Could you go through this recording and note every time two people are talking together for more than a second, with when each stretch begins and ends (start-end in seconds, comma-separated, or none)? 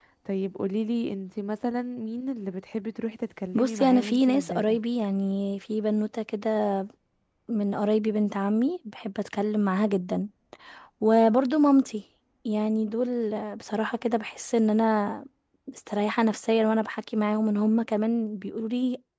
3.5-4.8